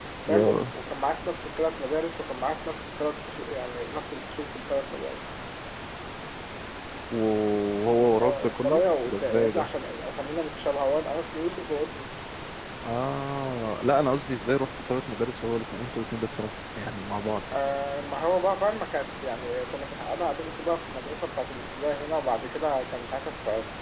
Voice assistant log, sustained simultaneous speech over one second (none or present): present